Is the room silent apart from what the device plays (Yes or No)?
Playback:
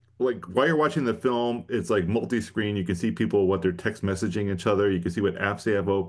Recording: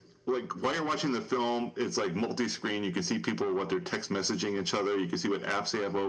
Yes